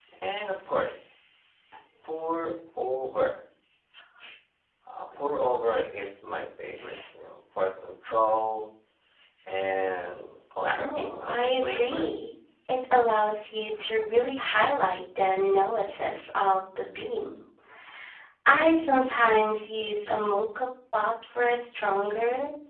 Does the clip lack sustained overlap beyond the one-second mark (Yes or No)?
No